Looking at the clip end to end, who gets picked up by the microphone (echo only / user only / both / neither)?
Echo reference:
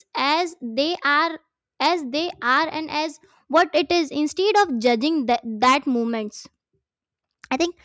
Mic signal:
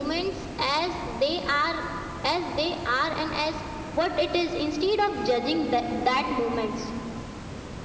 echo only